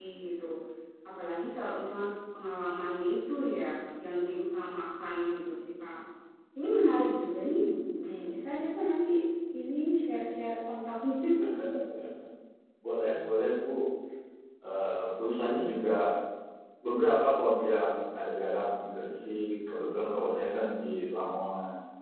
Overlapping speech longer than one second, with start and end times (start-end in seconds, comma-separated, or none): none